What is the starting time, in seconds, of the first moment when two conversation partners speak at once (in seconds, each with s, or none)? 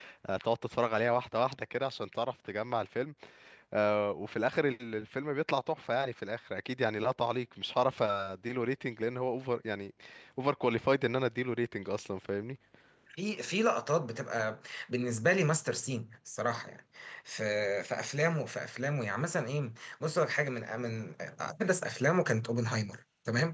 none